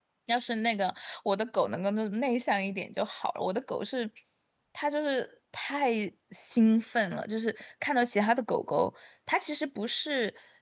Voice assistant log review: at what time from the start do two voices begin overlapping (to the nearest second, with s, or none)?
none